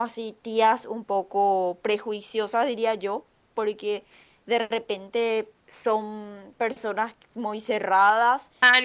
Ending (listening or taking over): taking over